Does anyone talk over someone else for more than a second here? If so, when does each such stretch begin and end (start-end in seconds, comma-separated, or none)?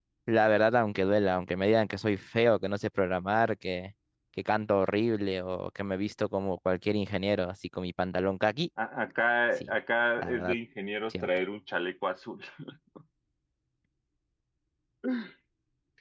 none